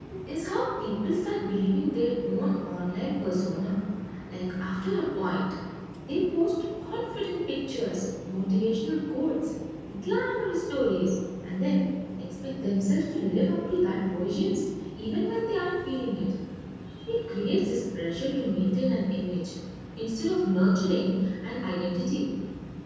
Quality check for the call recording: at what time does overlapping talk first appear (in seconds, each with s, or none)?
none